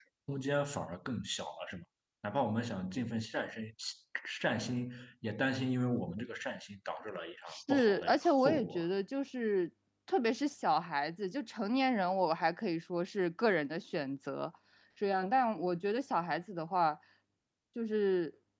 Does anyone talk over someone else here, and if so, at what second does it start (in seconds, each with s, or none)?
7.5 s